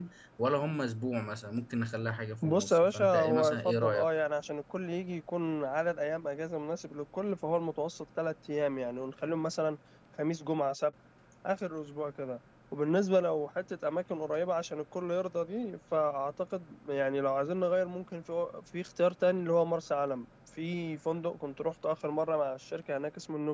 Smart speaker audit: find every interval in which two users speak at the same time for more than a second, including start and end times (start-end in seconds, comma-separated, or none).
2.4-4.1